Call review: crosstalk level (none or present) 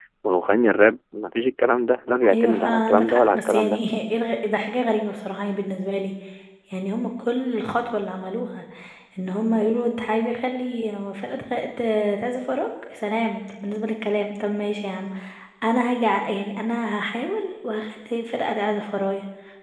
present